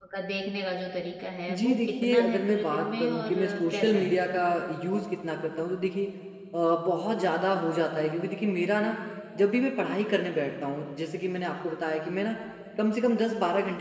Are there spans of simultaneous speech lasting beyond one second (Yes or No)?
Yes